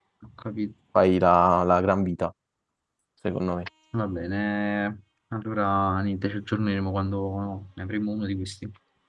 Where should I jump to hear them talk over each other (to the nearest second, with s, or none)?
none